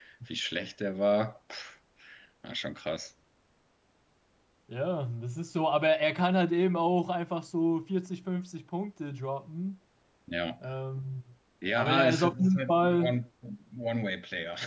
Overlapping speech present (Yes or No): Yes